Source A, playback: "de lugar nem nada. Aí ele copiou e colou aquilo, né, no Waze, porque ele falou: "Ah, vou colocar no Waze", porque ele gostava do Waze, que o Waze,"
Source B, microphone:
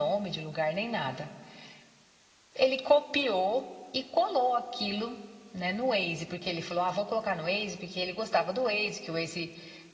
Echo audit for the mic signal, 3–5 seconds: echo only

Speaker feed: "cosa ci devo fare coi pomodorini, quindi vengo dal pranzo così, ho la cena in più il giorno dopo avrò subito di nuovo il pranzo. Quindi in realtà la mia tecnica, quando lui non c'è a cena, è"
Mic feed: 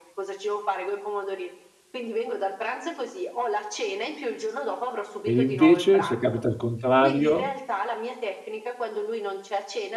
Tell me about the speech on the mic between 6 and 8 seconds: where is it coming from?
both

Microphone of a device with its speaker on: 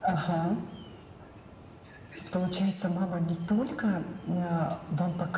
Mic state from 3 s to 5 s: echo only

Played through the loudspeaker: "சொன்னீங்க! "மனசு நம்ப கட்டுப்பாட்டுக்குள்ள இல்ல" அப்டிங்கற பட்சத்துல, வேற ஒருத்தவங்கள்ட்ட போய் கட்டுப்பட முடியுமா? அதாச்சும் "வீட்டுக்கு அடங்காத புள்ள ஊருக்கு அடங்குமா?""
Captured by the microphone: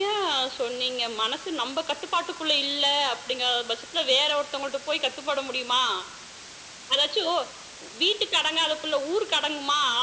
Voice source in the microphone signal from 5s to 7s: echo only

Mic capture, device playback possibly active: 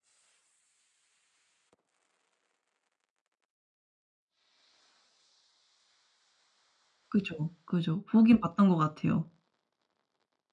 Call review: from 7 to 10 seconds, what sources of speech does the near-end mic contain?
user only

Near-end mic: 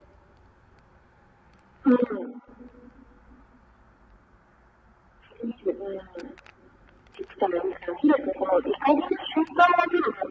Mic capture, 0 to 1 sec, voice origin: neither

